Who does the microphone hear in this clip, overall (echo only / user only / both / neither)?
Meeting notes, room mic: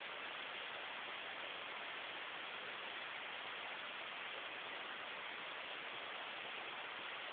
neither